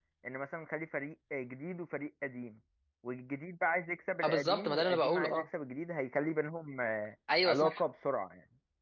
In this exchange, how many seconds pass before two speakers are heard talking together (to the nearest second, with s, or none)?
4 s